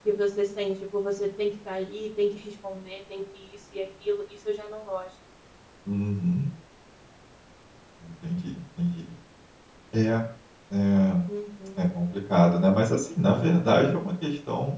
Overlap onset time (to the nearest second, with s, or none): none